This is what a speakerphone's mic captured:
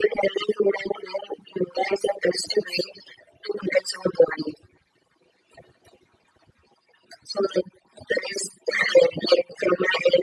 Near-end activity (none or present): none